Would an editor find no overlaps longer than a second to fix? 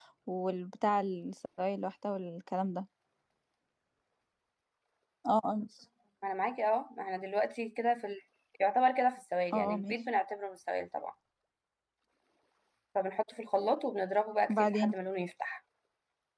Yes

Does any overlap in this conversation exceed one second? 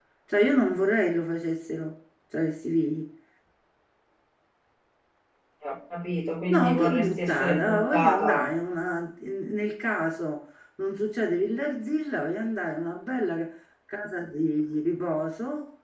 Yes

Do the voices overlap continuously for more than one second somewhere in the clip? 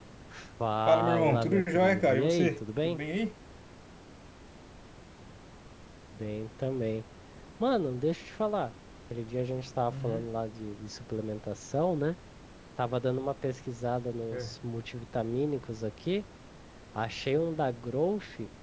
Yes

